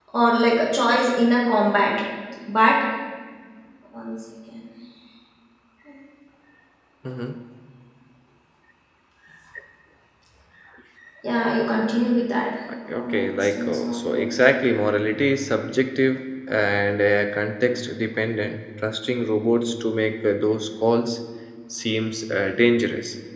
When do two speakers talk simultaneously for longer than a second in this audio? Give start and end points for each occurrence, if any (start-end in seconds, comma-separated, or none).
12.9-14.6